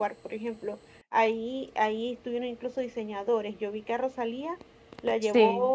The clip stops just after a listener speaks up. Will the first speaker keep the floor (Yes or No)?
Yes